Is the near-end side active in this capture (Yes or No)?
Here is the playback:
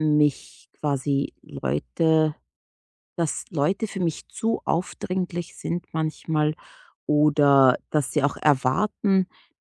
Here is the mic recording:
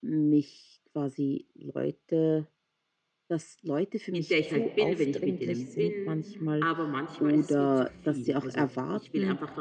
Yes